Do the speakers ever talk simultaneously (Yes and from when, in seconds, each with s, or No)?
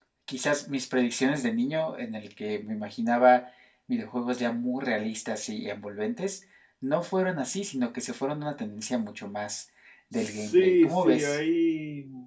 Yes, from 10.2 s